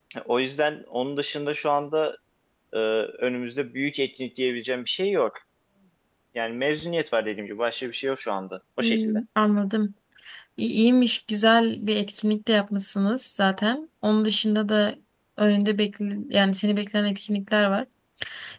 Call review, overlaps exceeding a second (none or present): none